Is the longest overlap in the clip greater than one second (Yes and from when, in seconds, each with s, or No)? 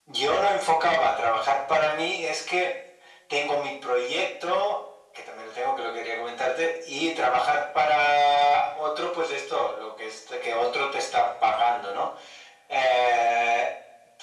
No